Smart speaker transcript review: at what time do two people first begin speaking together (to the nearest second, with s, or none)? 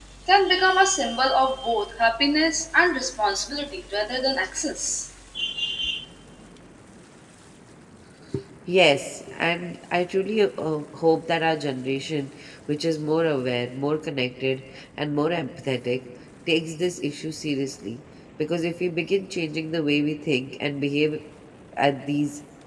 none